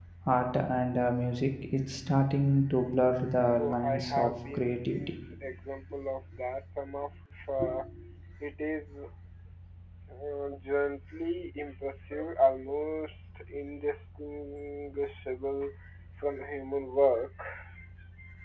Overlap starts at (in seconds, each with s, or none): 3.6 s